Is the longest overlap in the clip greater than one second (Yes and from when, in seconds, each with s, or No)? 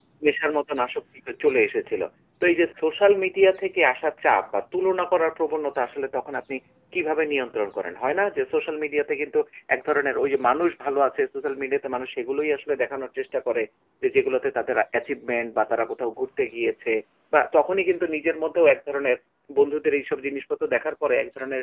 No